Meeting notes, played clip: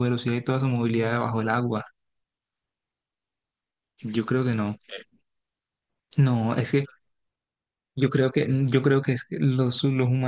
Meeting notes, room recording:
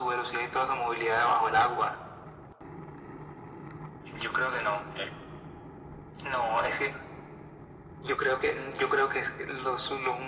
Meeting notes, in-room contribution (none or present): none